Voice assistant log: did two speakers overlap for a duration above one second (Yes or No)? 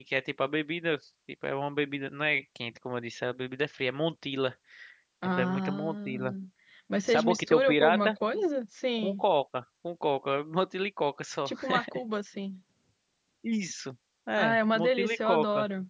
Yes